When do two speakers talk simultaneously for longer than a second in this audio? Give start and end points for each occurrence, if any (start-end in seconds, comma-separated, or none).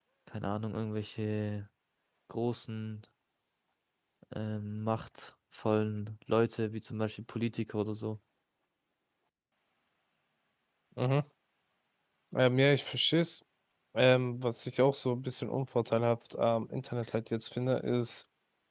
none